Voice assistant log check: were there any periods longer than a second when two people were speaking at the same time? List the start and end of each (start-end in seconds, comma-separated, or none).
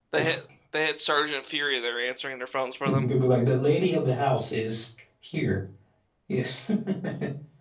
none